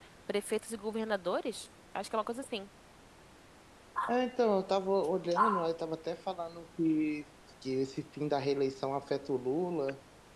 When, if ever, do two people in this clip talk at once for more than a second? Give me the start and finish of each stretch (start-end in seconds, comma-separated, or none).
none